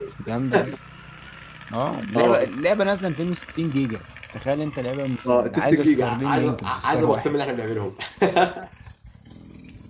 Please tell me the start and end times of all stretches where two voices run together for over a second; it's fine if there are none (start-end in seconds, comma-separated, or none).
5.3-7.3